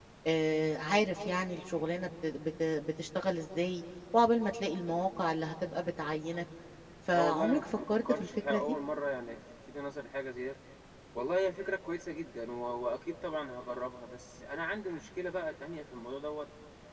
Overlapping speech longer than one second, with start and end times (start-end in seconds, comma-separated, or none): 7.1-8.8